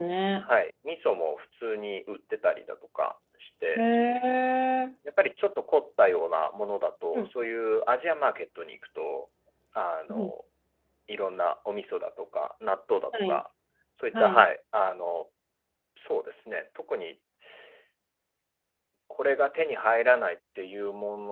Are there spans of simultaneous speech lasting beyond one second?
No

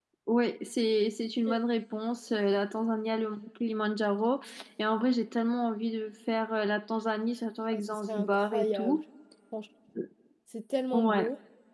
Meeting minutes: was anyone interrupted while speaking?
Yes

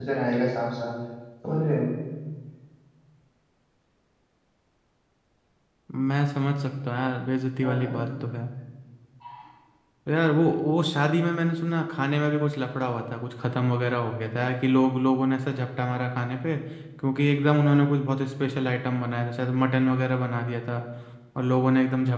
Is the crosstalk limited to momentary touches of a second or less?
Yes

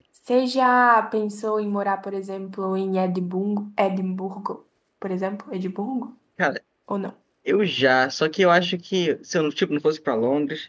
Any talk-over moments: No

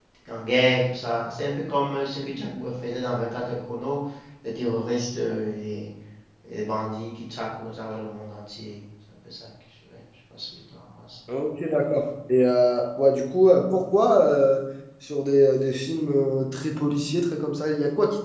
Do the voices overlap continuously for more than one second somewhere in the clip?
No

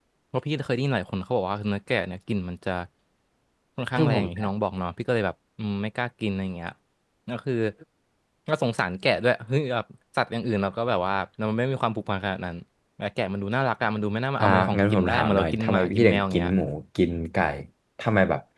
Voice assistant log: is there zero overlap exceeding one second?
No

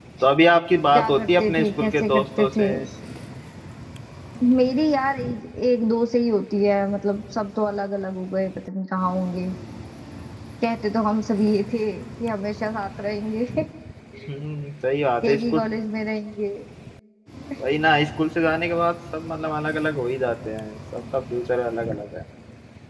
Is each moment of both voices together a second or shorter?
No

